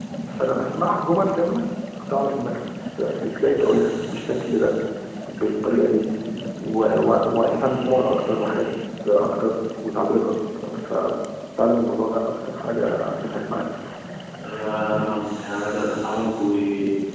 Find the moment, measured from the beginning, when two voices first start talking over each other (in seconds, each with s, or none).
none